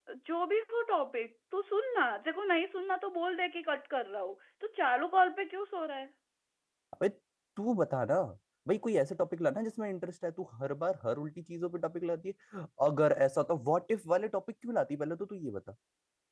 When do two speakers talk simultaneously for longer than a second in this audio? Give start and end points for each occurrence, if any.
none

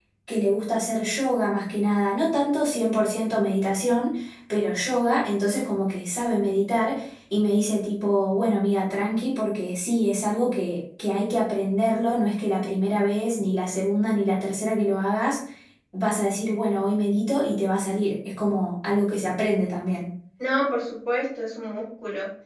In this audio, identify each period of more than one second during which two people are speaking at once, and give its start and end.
none

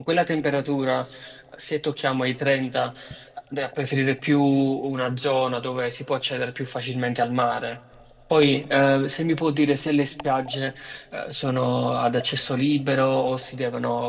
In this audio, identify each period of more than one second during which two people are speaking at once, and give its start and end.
none

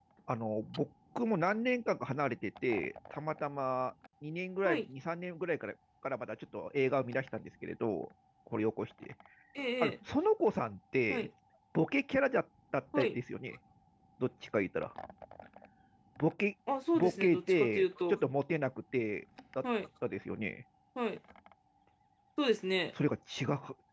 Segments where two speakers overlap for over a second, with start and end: 16.9-18.2

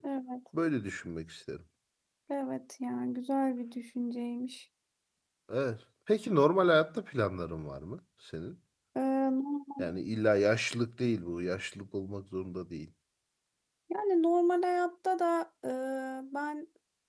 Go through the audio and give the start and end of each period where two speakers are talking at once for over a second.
none

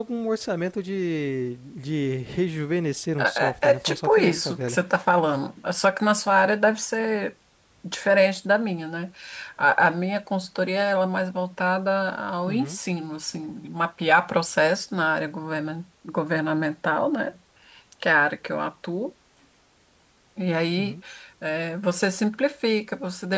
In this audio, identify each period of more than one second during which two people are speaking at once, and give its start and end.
3.2-4.8

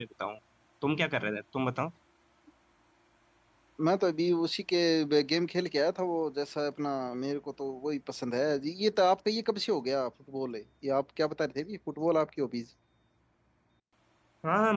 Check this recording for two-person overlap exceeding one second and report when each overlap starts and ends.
none

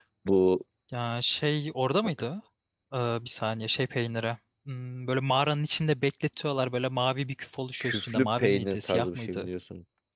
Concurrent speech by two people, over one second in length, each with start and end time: 7.8-9.5

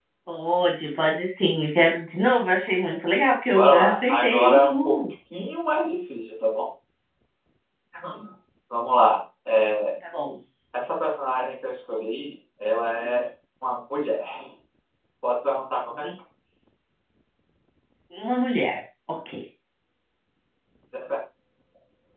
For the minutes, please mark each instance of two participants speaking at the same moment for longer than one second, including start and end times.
3.5-5.0

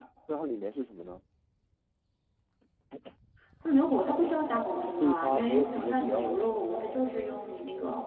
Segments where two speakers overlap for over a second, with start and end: 4.8-6.5

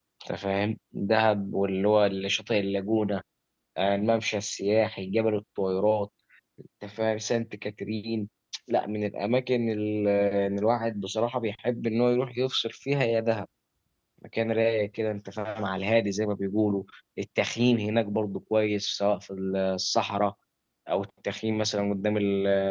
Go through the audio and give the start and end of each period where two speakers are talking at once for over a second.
none

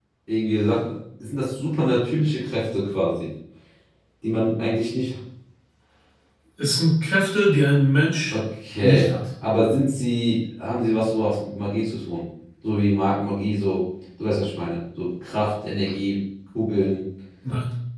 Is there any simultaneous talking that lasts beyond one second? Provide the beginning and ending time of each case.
none

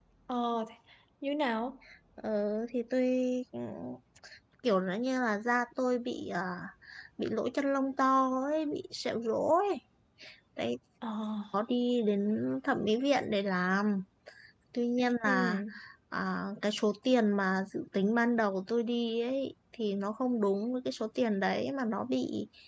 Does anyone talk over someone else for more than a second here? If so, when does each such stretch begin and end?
none

